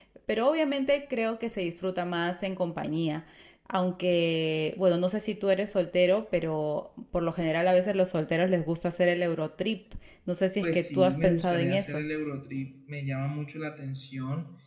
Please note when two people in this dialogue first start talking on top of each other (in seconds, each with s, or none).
10.6 s